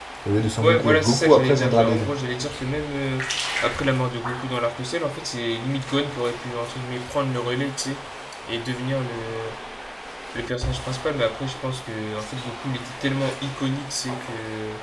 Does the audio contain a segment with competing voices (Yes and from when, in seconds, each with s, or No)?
Yes, from 0.6 s